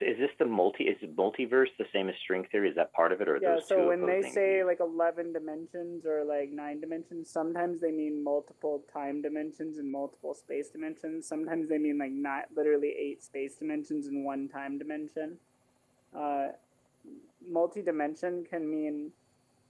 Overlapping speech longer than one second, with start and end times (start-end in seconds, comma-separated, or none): 3.4-4.6